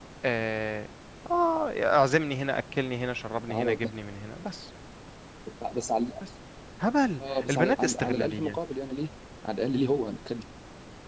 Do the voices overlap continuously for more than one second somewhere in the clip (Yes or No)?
Yes